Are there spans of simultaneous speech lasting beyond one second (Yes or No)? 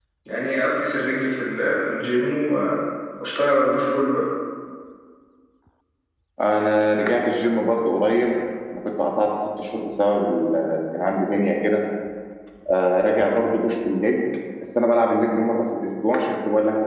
No